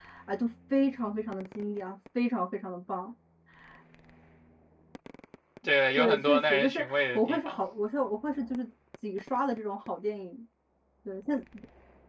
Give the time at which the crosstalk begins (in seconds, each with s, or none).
6.0 s